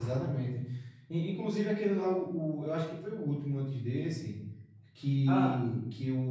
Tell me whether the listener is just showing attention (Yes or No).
Yes